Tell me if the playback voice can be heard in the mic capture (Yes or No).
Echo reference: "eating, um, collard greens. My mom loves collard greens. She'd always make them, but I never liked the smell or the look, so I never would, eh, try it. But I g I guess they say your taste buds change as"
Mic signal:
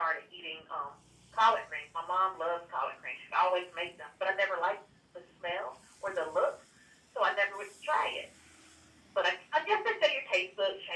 Yes